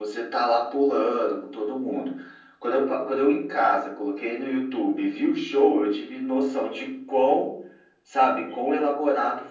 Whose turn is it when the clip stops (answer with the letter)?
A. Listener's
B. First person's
B